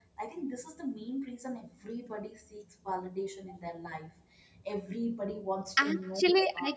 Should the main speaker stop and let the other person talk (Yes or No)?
Yes